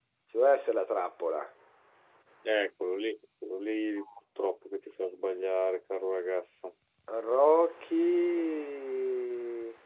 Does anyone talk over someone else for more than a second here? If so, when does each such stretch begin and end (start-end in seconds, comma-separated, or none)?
none